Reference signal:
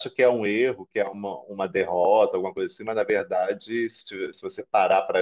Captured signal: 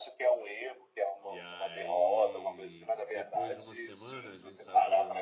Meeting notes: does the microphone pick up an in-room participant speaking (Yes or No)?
Yes